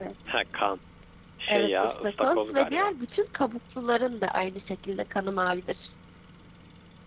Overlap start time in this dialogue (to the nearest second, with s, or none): 1 s